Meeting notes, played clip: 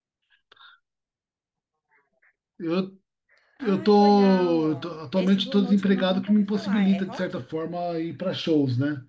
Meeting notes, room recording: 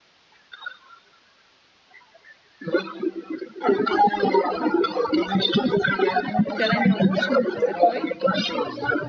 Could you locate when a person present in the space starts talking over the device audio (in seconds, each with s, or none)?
6.5 s